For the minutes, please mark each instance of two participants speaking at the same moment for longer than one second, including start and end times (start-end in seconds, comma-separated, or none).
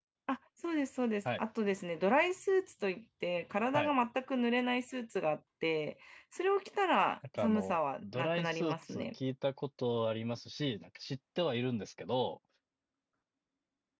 7.4-9.1